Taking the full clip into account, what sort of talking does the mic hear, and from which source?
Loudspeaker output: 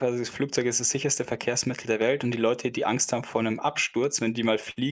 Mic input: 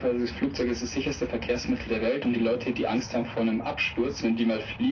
echo only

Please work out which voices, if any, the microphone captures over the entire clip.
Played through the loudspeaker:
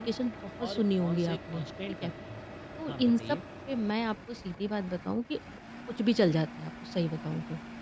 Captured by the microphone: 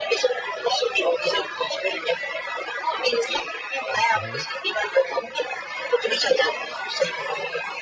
both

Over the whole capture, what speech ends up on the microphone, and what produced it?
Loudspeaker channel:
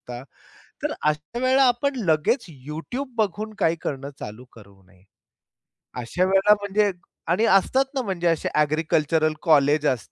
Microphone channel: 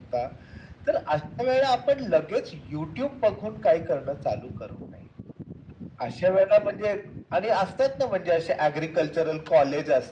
echo only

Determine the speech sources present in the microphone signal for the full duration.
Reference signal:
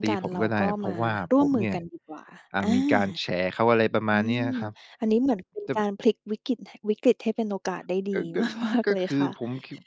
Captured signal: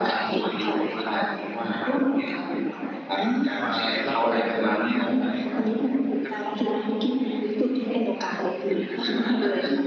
both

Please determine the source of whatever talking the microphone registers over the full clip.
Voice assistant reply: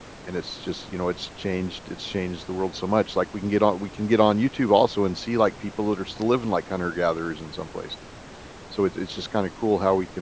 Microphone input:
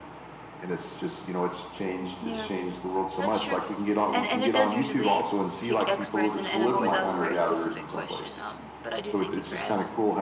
both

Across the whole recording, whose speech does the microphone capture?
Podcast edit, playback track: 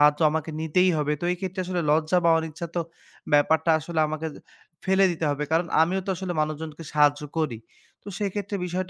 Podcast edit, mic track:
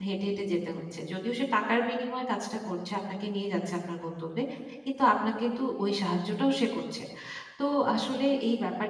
user only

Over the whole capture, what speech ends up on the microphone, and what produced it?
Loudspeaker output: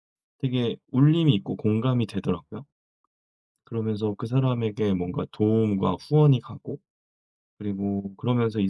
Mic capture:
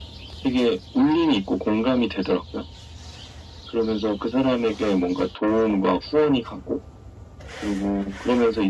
echo only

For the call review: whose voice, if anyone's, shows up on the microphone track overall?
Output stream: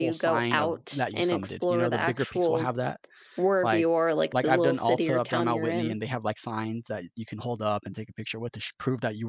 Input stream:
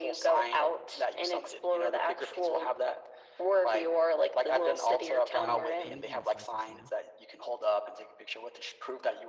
both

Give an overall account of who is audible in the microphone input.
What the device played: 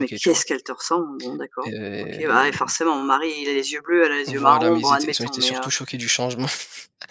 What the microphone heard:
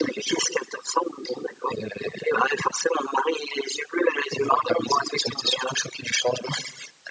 echo only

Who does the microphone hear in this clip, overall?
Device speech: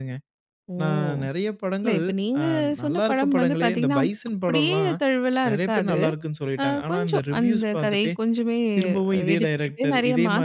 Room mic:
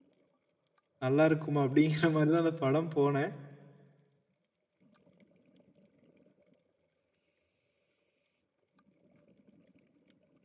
user only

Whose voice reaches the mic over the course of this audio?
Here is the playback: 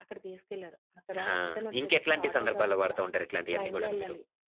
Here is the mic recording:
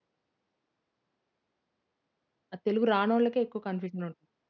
user only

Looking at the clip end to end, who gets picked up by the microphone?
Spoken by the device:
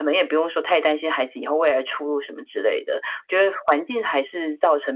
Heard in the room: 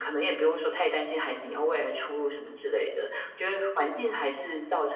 echo only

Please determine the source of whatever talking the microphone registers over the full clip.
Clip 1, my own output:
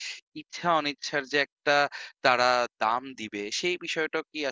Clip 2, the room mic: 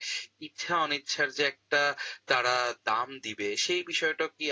echo only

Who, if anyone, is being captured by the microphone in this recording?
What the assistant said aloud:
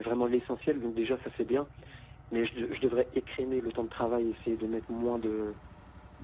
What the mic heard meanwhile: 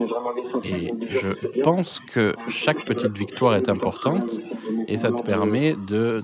both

